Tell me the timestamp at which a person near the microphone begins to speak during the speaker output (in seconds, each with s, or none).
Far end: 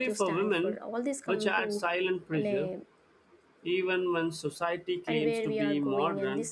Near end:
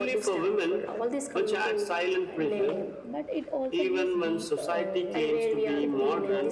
2.2 s